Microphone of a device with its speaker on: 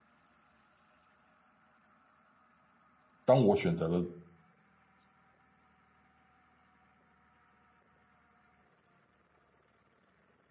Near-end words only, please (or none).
当我选择了